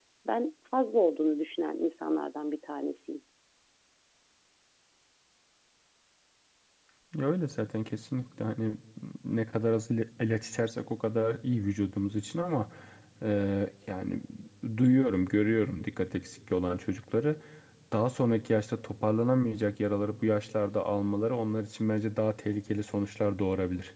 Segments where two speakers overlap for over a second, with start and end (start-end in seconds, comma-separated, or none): none